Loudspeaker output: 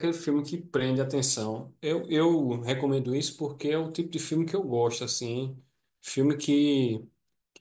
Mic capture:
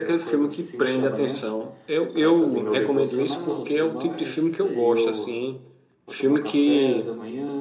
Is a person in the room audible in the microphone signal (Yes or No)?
Yes